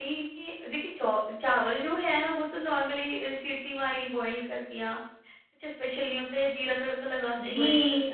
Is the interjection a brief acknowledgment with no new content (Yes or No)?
No